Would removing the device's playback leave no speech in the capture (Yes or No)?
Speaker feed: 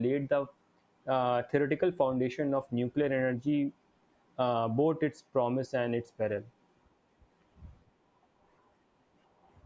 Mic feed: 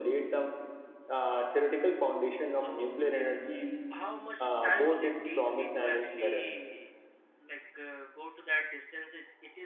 No